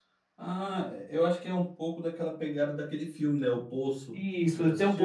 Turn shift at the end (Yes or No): Yes